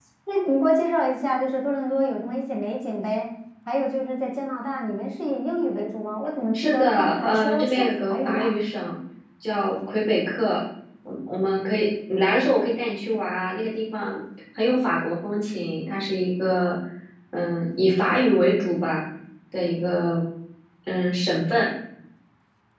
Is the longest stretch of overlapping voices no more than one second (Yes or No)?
No